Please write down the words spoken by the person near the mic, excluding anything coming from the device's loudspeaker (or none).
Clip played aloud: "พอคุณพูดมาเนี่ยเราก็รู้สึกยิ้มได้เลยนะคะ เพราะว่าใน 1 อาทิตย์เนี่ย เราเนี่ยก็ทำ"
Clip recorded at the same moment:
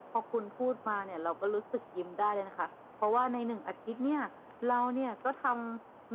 none